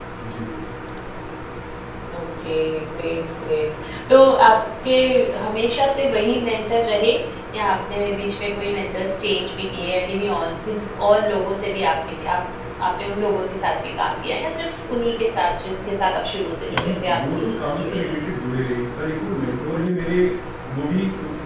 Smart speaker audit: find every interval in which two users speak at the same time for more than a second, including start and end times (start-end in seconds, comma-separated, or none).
16.7-18.1